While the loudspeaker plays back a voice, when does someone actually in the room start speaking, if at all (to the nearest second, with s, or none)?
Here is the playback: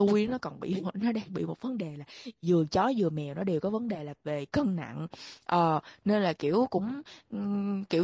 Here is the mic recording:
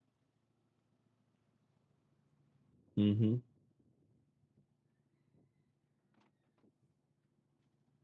3 s